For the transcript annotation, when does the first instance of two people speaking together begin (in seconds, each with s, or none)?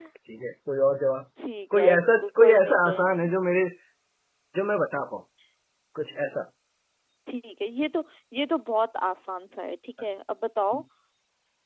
1.8 s